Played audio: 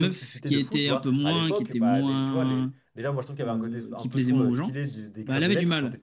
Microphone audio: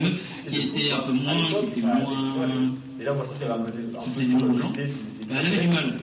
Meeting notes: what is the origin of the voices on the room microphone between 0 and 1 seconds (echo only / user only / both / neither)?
echo only